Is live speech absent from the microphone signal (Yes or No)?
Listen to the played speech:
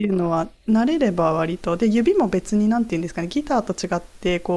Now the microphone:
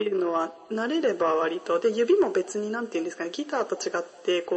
Yes